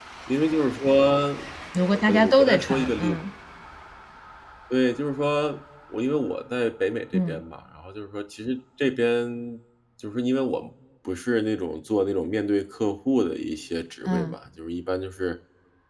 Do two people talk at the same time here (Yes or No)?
Yes